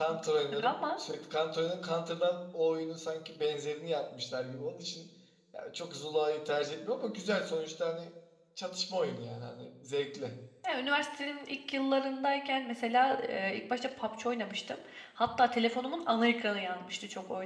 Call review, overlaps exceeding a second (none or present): none